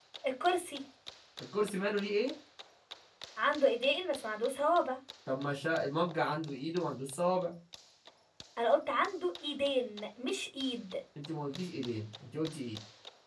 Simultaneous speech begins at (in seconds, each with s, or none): none